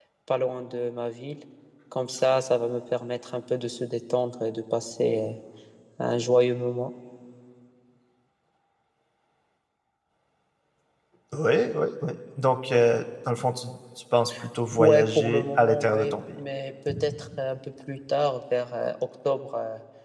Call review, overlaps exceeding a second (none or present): present